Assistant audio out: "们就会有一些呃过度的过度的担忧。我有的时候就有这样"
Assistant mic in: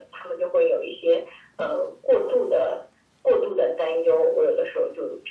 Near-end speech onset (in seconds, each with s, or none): none